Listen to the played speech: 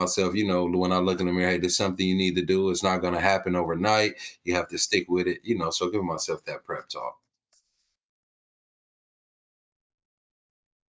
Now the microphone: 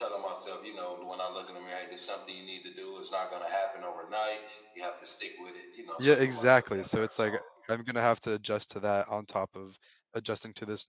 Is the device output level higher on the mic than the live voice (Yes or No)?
No